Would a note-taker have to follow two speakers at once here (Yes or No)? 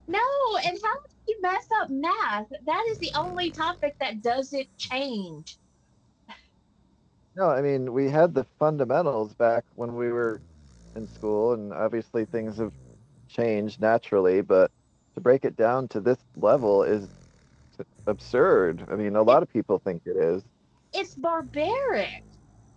No